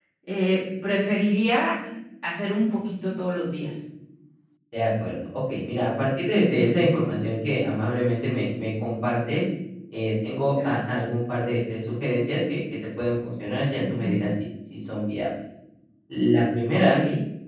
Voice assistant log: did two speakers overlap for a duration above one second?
No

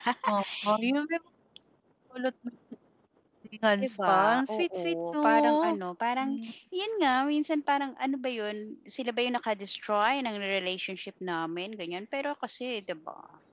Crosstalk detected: Yes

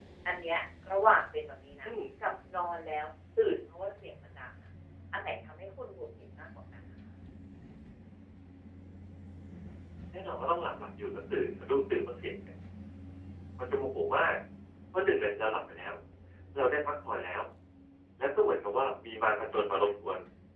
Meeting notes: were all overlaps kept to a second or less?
Yes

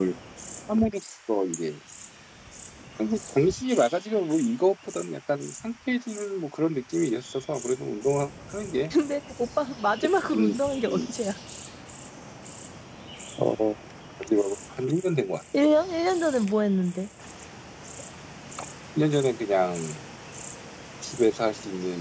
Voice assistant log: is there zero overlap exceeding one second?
Yes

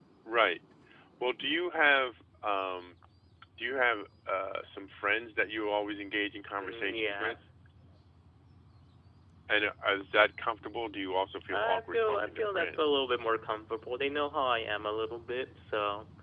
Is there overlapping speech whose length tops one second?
Yes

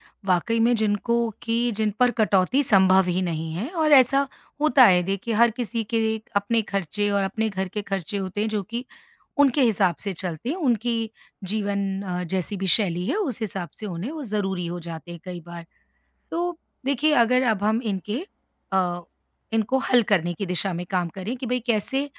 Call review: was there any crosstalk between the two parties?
No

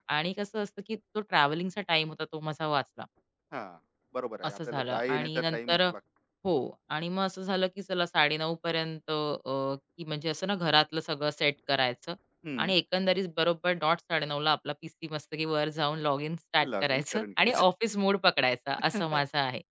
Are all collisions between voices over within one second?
No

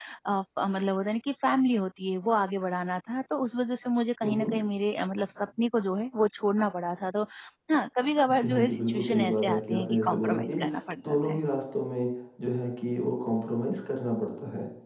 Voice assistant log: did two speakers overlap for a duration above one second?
Yes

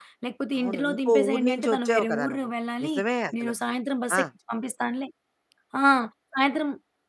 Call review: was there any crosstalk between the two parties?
Yes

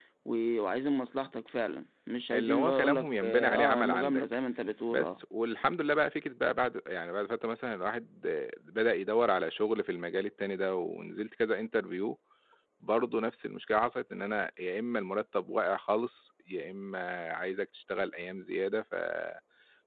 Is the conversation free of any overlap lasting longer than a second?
No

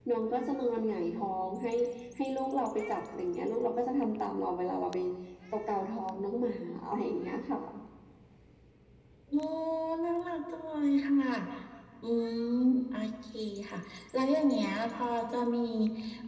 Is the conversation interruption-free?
Yes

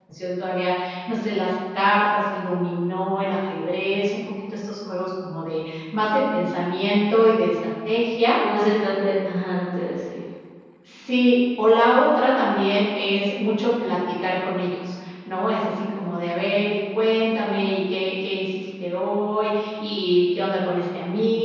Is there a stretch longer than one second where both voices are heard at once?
No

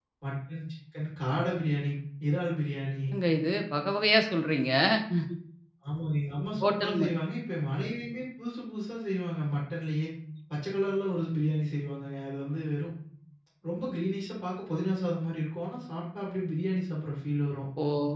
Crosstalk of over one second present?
No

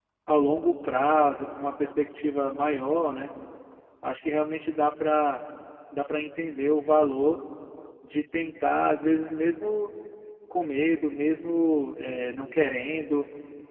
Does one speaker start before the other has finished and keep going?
No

